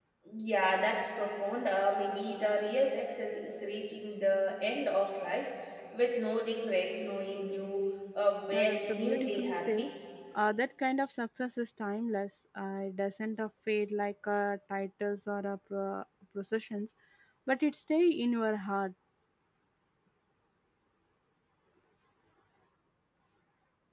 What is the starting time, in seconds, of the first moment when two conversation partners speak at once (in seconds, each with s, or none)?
8.5 s